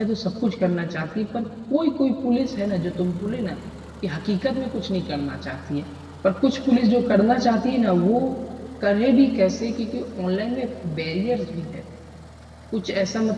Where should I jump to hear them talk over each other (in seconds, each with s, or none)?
none